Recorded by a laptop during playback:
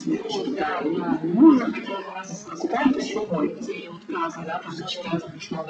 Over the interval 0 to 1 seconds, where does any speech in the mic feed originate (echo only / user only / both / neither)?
echo only